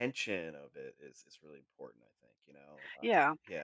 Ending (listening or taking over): taking over